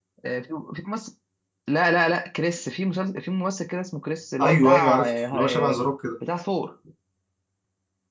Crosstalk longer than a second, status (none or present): present